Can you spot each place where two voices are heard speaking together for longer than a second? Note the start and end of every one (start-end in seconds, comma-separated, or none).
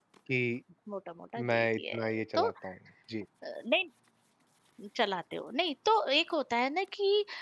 1.4-2.7